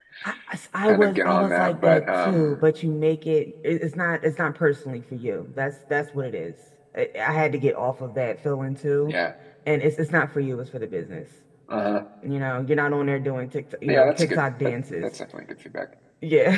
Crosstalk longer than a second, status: present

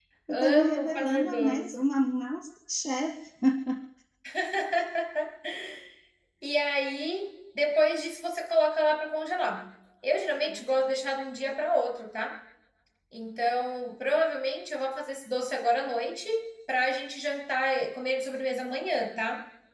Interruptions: present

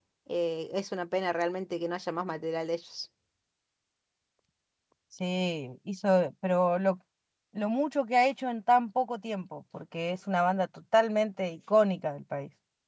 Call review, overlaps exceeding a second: none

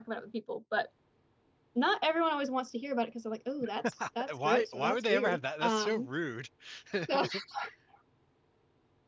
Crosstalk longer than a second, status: present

